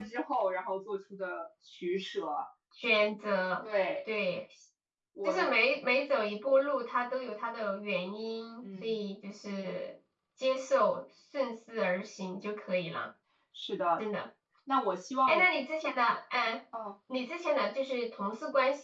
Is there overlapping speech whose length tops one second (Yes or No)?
No